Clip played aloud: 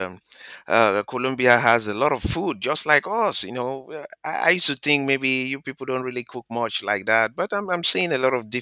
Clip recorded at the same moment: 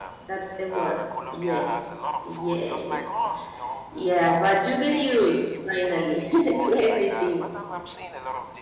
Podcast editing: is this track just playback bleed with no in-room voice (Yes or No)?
No